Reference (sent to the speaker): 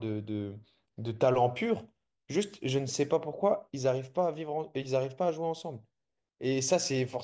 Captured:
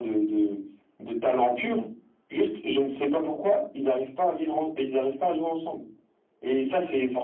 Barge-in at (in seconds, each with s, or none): none